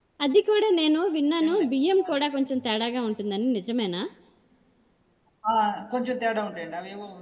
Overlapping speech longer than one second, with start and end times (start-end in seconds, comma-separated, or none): none